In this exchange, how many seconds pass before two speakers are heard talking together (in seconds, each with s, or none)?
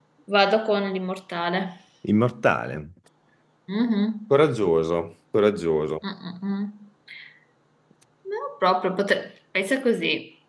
none